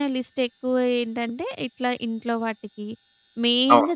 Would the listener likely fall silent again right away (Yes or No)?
Yes